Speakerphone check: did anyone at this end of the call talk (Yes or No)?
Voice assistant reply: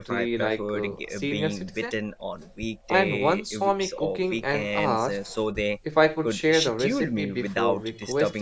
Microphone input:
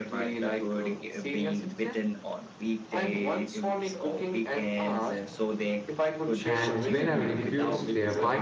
Yes